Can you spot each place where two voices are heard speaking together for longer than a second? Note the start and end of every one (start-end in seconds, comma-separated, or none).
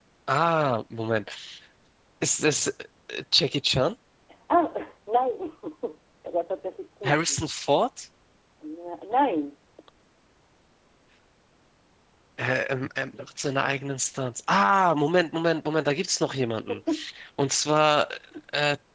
none